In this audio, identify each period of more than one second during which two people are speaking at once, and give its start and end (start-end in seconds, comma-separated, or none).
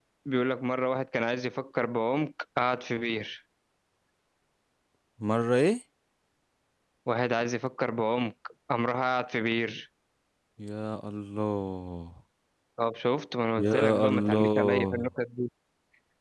13.6-15.1